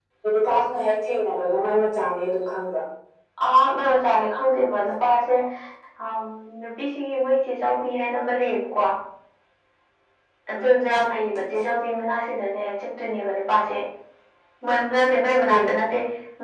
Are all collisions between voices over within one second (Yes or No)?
Yes